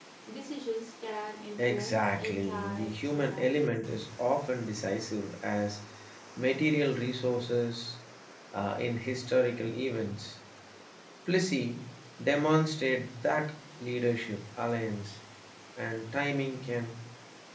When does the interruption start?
1.6 s

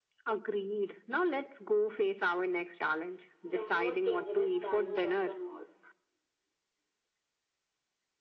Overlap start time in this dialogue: 3.4 s

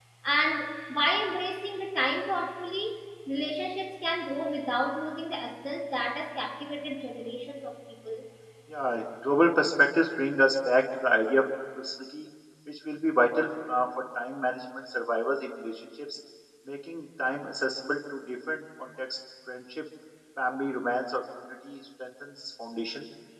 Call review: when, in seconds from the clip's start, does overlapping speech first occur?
none

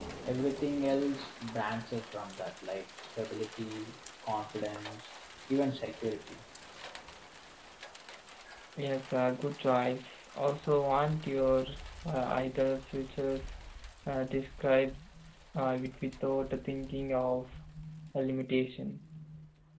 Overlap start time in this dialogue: none

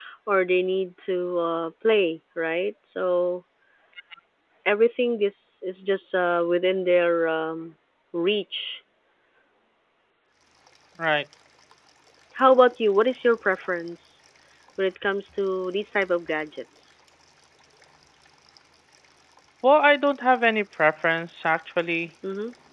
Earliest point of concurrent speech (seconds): none

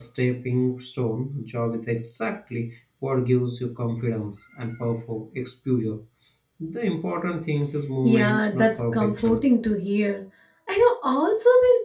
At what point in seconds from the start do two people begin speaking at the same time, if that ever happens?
8.0 s

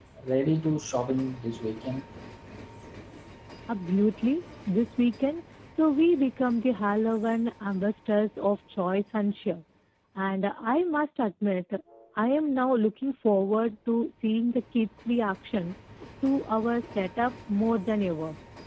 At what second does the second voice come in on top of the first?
none

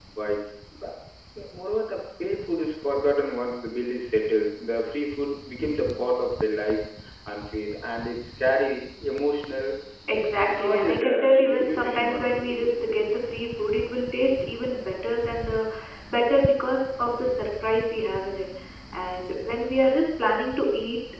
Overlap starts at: 10.4 s

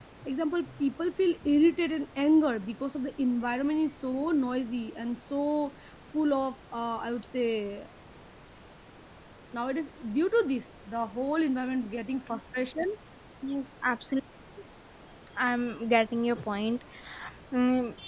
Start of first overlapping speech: none

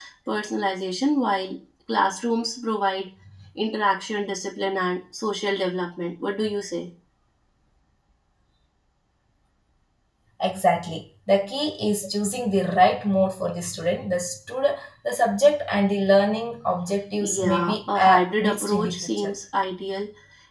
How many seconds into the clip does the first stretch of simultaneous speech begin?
17.2 s

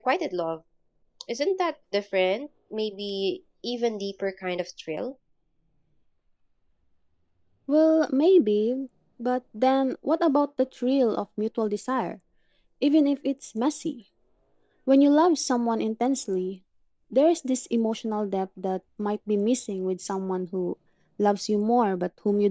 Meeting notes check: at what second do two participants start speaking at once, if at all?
none

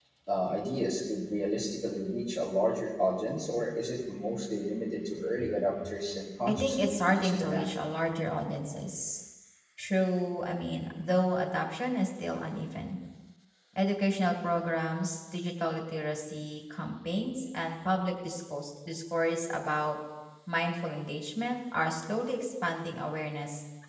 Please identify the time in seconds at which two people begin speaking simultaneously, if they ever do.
6.5 s

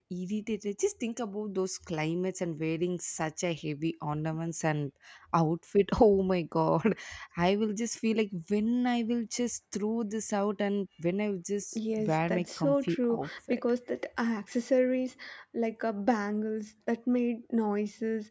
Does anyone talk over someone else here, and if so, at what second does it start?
11.8 s

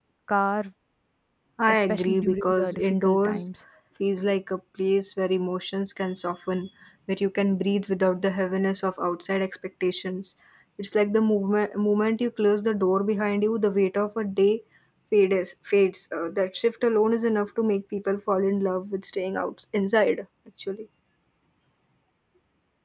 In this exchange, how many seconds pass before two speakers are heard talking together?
1.7 s

